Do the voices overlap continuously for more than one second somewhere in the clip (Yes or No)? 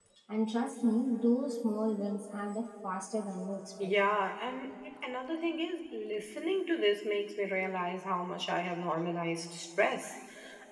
No